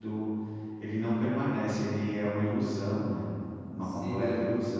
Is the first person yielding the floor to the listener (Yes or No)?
Yes